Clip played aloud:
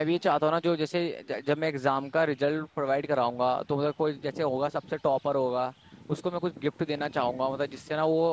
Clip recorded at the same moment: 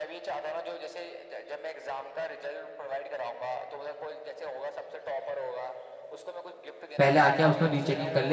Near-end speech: present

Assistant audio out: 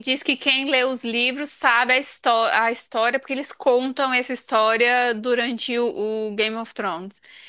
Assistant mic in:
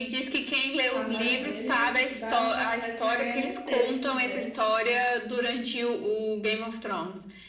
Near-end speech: present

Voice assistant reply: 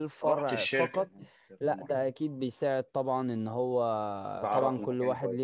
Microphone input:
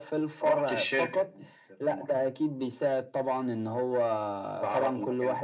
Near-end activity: none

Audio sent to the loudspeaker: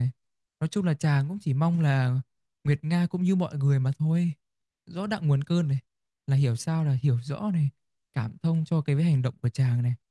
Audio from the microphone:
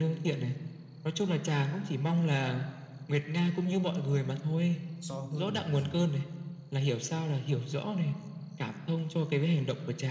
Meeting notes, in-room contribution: present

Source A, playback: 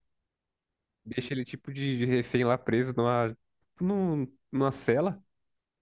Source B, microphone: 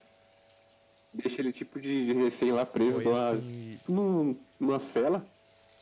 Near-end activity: present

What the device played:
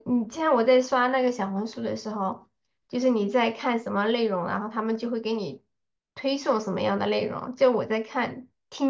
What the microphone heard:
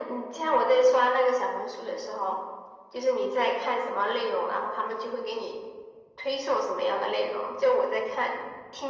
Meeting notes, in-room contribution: none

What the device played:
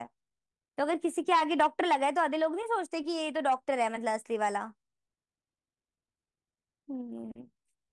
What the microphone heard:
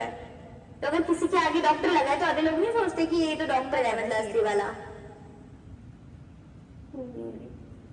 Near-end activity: present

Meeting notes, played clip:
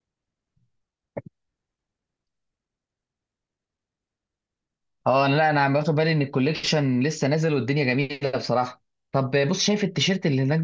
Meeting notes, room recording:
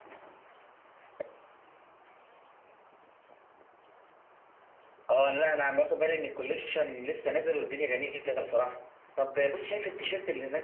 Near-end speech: none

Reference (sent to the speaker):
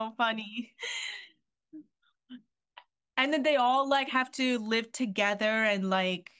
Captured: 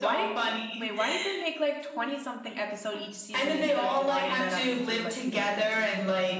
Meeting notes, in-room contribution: present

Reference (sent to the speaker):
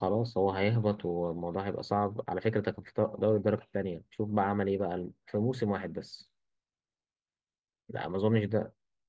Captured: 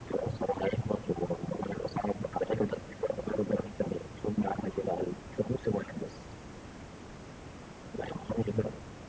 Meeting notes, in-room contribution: none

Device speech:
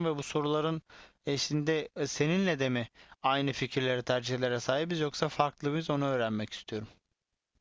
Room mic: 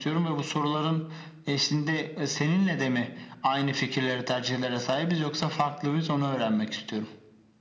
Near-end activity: none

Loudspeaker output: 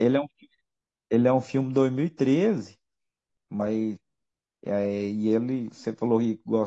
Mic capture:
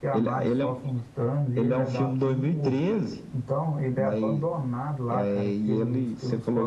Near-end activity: present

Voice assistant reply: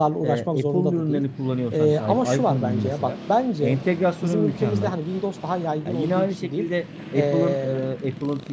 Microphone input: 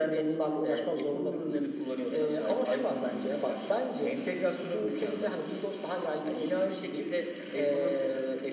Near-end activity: none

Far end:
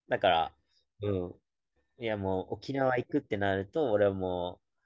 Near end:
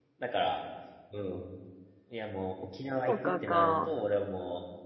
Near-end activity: present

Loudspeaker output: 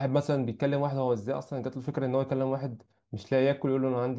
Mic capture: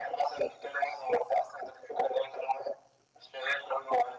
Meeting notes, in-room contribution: none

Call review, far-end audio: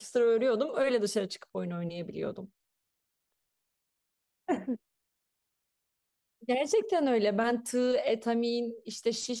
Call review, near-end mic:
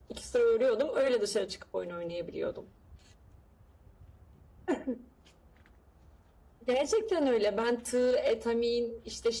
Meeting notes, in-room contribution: none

